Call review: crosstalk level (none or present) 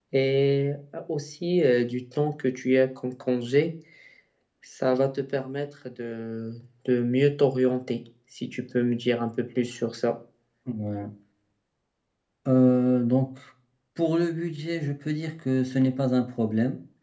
none